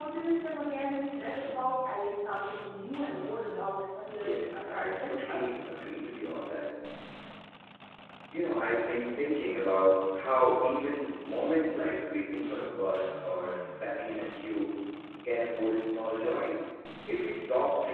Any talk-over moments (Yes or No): Yes